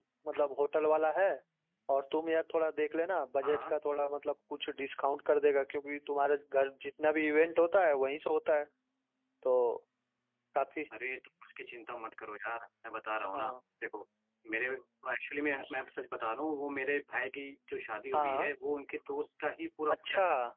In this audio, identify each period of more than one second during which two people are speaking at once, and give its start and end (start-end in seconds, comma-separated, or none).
none